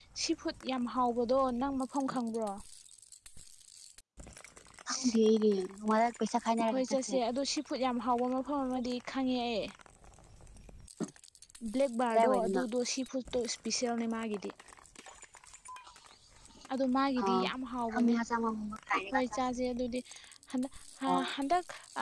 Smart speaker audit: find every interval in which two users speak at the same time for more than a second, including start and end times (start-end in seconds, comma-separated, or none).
none